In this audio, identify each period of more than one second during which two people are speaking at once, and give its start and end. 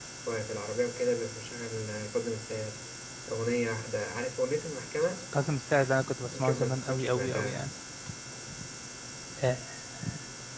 6.3-7.6

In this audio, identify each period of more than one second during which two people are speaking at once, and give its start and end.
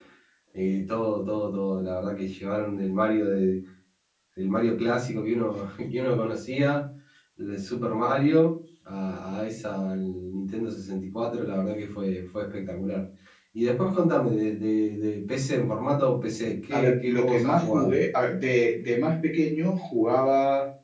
16.7-17.9

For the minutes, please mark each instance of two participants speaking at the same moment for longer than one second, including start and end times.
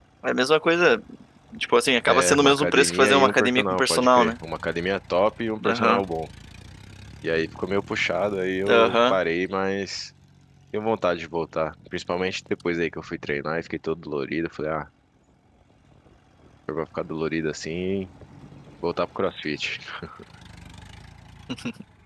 2.1-4.3

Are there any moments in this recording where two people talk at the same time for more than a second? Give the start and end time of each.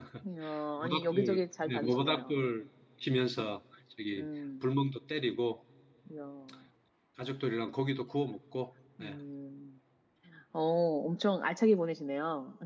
0.8-2.4

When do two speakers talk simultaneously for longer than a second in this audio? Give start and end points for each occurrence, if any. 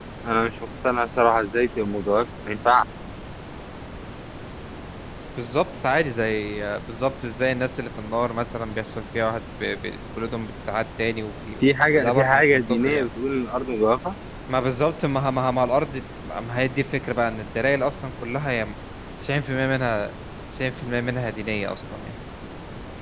11.6-13.1

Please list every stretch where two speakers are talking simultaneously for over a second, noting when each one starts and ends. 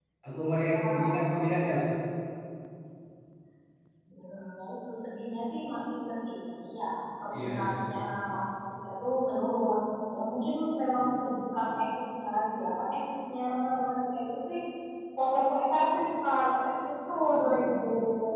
none

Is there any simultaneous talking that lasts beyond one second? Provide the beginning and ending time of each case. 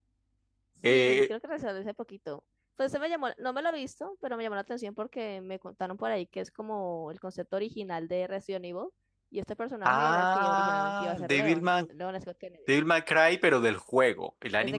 9.8-11.7

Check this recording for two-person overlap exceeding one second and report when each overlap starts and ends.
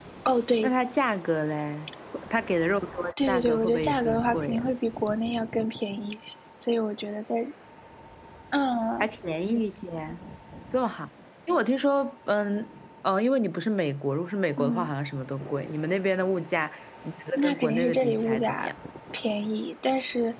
3.3-4.7, 17.3-18.7

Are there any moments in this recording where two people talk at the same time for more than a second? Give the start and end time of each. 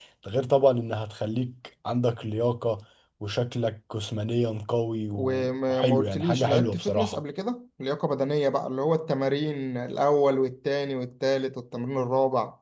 5.1-7.2

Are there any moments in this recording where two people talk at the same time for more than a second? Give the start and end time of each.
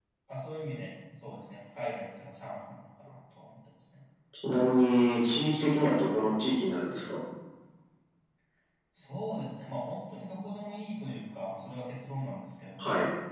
none

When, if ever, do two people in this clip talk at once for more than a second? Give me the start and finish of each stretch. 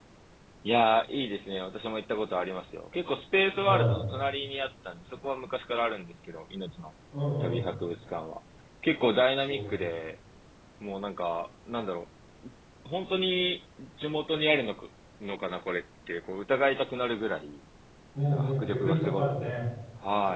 18.3-19.6

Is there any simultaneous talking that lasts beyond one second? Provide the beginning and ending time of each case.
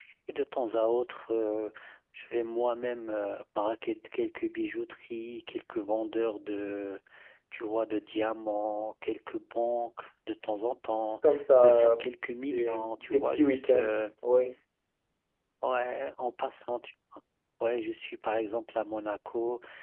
12.5-13.9

